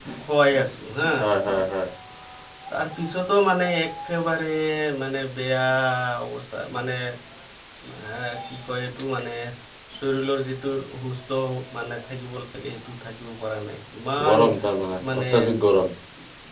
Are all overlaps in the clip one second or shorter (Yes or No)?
Yes